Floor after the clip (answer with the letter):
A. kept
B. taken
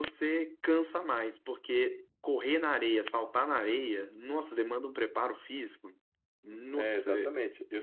B